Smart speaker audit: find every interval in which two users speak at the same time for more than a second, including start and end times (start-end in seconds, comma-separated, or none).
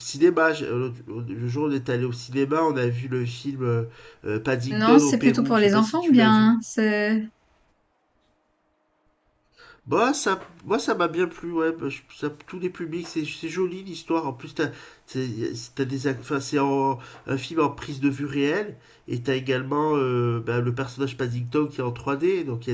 4.7-6.5